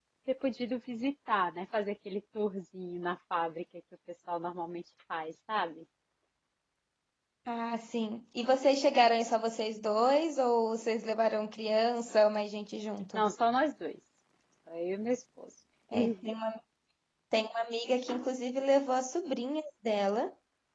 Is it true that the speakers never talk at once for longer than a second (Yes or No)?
Yes